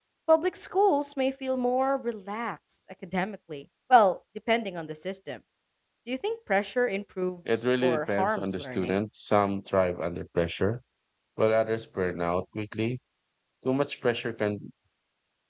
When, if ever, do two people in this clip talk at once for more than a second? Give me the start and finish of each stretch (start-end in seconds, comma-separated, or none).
7.5-9.0